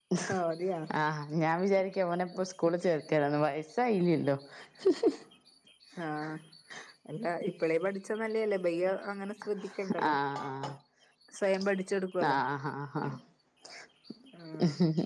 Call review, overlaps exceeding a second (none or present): none